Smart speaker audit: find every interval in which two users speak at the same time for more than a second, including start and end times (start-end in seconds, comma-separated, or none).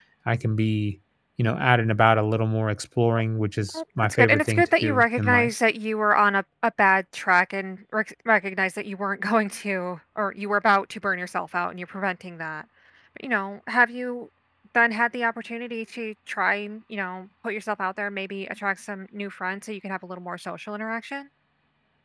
3.7-5.5